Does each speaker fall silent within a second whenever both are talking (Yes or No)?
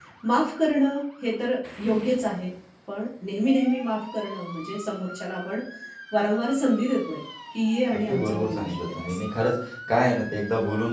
No